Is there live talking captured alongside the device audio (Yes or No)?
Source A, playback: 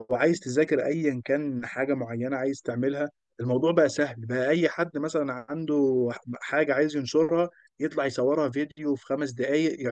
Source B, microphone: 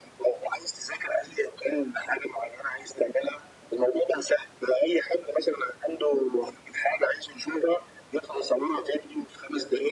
No